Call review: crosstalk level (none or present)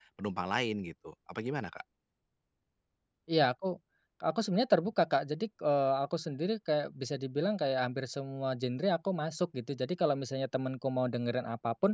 none